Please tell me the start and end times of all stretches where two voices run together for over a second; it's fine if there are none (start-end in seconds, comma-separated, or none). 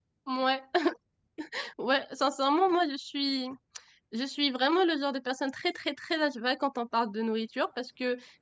none